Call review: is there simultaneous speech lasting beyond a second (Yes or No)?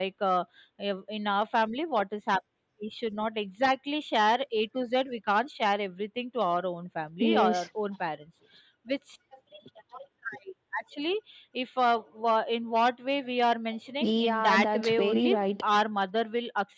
Yes